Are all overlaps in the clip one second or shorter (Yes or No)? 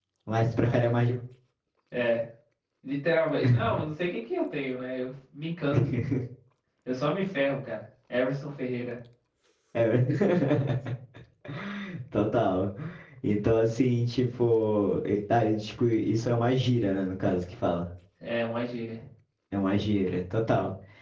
Yes